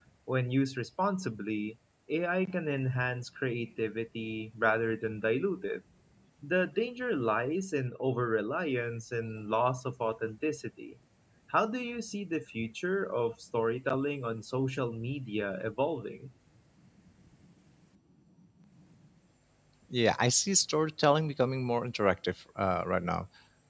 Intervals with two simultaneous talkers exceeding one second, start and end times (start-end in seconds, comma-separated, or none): none